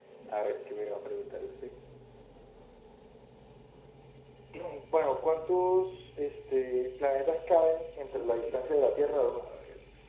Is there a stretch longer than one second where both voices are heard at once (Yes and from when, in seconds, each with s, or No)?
Yes, from 8.1 s